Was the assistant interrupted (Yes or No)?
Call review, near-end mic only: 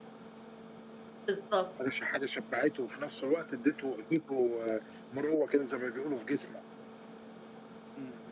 Yes